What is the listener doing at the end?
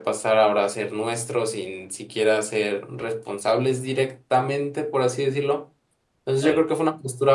listening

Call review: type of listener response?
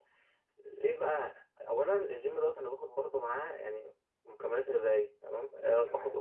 listening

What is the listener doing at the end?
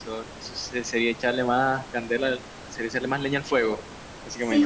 taking over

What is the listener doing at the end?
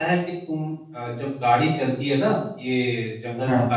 listening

